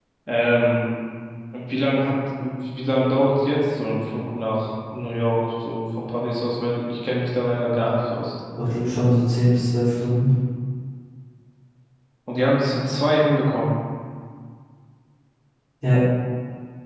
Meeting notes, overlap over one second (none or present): none